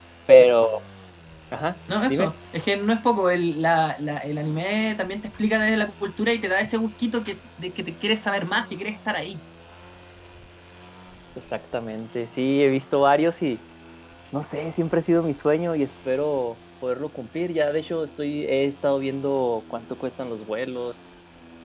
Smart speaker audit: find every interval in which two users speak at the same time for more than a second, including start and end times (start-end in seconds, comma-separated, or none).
none